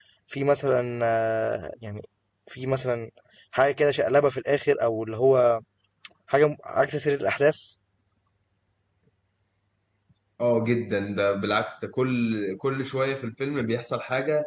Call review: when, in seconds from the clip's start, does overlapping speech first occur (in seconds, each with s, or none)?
none